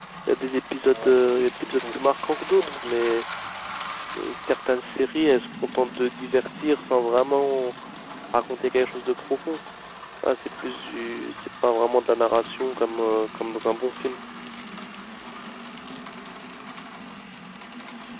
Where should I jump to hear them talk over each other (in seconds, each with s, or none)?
0.8 s